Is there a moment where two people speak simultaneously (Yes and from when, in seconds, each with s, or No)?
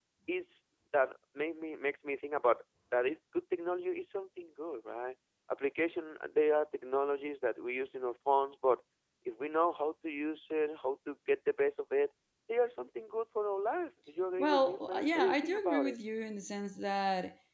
Yes, from 14.4 s